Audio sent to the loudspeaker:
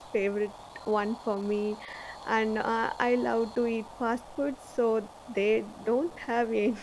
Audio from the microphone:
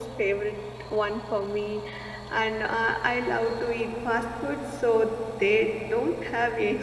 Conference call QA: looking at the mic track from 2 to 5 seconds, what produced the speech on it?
echo only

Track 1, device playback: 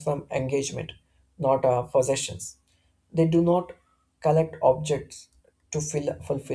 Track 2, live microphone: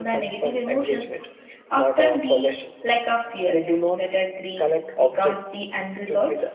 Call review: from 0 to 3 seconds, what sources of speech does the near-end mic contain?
both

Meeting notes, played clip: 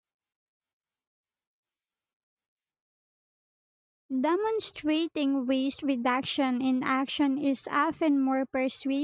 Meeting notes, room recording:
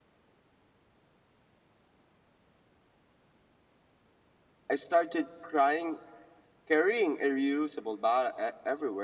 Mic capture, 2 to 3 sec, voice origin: neither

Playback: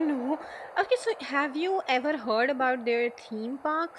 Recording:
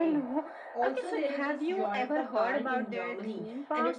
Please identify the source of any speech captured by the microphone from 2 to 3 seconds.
both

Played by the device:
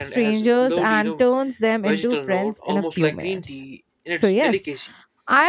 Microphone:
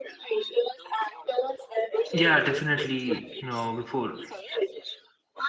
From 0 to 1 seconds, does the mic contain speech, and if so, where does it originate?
echo only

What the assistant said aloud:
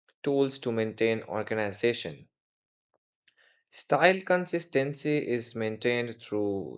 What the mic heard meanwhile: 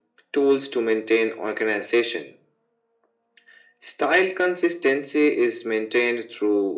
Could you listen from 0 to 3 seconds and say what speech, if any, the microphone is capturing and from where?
echo only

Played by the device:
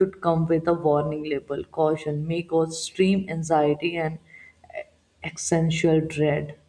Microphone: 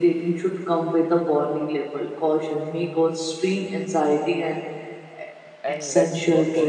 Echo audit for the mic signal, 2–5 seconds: echo only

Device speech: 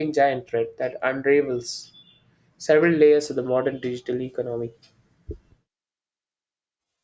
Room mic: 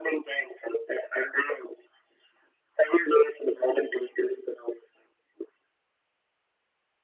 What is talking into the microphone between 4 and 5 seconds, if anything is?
echo only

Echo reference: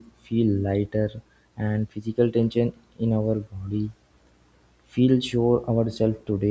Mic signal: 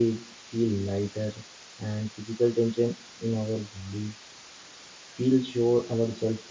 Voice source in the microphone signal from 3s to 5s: echo only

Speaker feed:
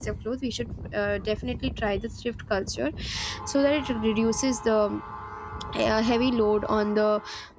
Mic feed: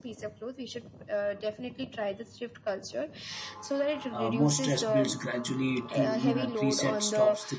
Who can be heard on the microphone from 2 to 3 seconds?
echo only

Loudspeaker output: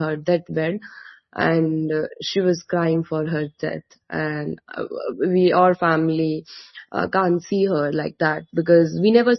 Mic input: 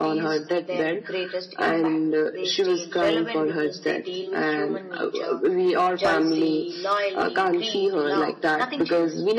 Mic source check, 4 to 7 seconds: both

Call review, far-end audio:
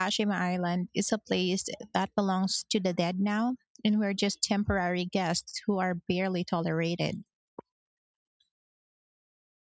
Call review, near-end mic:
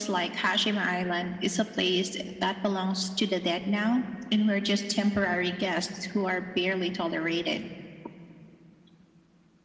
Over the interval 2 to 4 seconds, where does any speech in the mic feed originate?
echo only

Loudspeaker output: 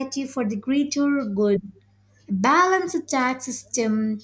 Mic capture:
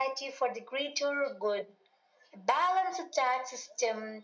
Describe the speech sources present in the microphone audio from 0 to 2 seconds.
echo only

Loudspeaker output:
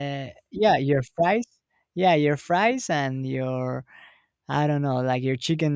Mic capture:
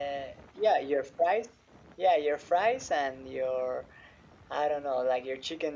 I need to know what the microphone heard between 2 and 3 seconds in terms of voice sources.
echo only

